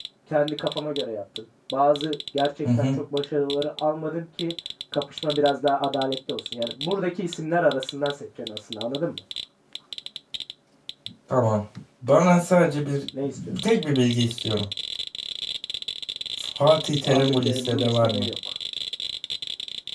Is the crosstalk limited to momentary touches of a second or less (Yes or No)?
No